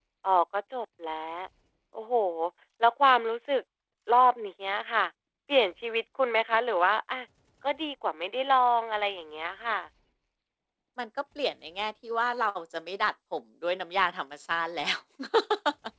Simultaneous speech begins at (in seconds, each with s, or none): none